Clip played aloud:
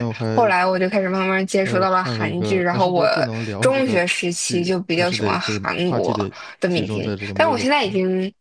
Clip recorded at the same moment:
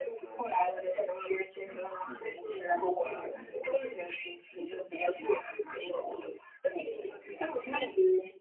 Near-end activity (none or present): present